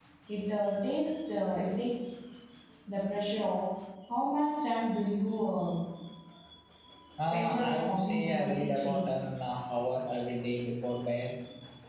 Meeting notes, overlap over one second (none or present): present